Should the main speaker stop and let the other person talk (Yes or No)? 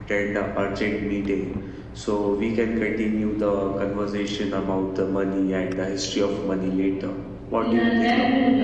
Yes